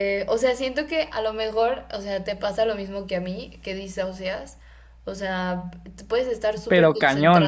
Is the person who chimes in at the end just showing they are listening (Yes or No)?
Yes